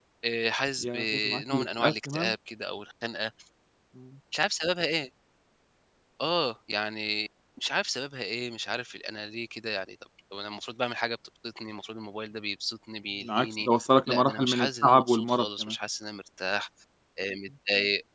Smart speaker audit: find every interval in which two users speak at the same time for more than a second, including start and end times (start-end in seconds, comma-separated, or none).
0.8-2.3, 14.1-15.8